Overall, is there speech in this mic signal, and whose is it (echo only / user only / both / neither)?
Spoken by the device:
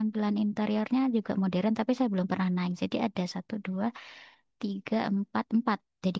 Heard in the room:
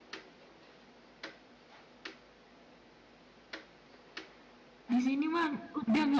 user only